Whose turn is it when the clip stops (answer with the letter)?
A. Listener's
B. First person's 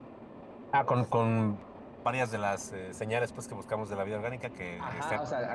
A